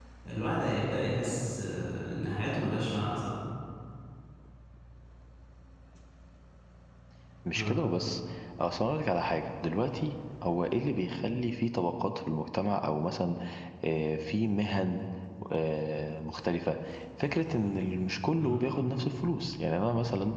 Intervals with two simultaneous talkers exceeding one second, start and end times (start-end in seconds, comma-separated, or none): none